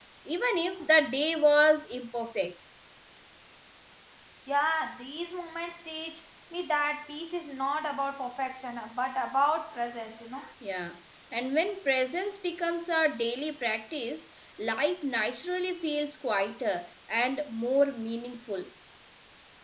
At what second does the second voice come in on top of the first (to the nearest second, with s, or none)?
none